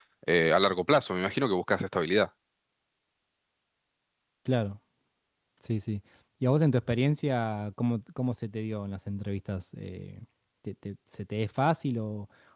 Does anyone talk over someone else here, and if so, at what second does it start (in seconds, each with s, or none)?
none